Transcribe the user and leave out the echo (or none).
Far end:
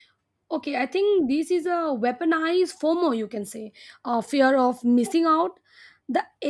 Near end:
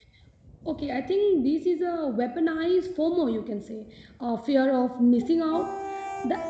none